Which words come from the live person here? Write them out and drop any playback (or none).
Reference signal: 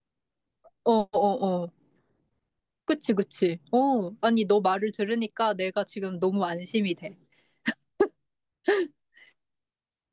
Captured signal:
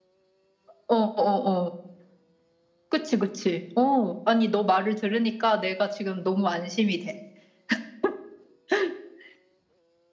none